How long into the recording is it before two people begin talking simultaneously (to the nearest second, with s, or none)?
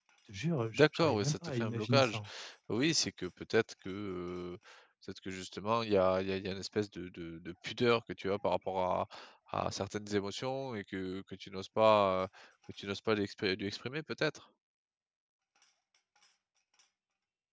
1 s